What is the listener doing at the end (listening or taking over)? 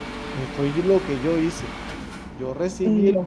listening